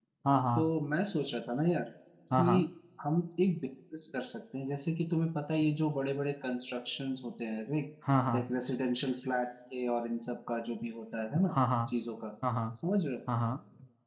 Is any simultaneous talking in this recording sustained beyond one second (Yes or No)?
No